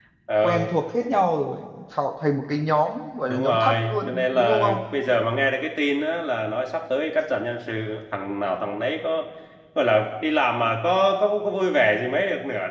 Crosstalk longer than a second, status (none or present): present